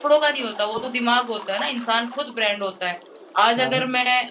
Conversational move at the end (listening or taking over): listening